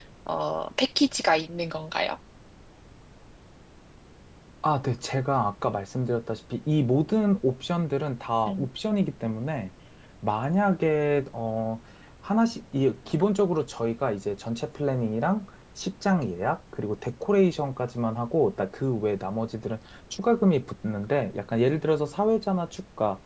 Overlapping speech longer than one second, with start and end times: none

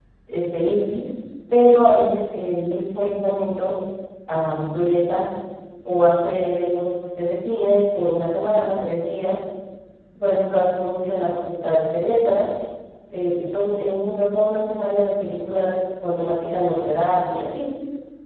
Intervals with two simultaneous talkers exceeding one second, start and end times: none

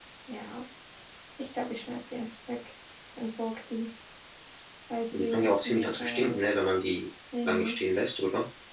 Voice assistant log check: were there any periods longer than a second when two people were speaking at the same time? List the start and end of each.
5.1-6.5

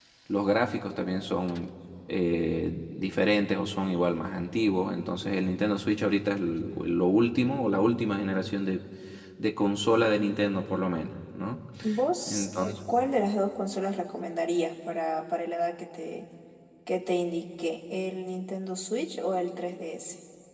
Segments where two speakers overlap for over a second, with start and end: none

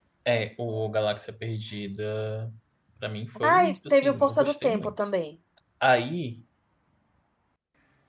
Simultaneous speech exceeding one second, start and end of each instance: 3.5-4.9

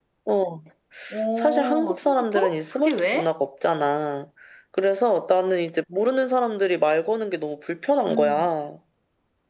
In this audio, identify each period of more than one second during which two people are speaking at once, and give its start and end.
1.4-3.3

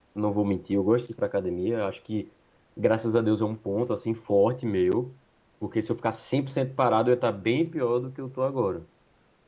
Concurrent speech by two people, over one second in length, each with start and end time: none

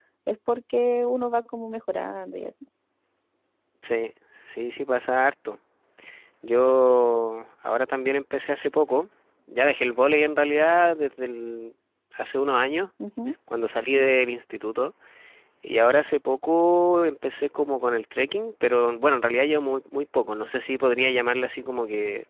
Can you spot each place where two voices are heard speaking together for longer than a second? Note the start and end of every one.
none

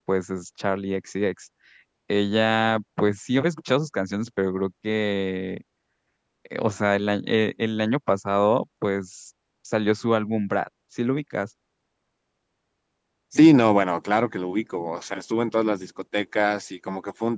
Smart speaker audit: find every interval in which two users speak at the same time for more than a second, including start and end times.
none

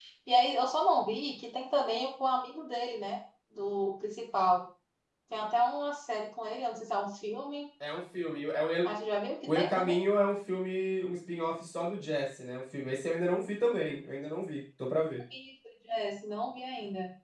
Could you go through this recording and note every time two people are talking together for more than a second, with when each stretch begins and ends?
none

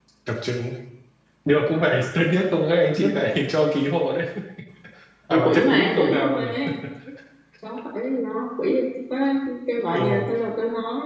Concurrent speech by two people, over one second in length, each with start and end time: 5.3-6.5

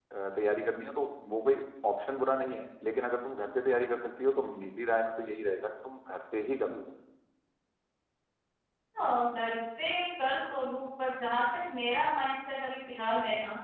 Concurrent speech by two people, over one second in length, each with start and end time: none

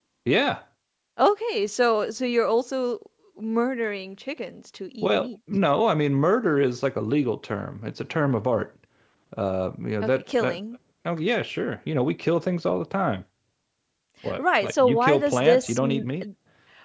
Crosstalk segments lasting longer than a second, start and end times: 14.4-15.8

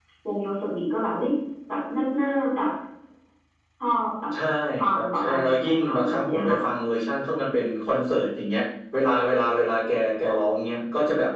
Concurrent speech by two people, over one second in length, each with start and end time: 4.9-6.6

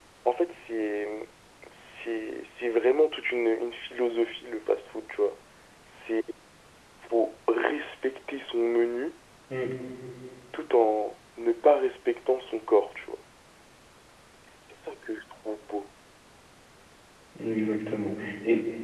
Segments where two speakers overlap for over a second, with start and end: none

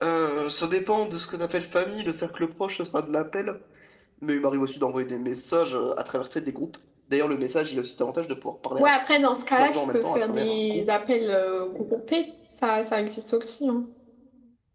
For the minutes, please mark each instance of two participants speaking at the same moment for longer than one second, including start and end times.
9.6-10.8

